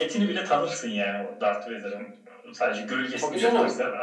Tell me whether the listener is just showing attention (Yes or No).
Yes